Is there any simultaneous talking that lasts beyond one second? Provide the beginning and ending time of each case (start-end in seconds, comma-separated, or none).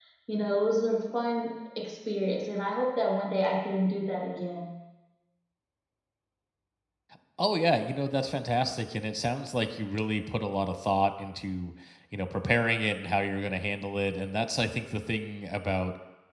none